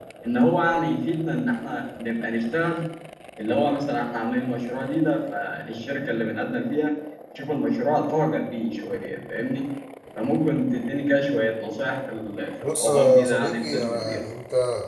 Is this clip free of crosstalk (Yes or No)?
No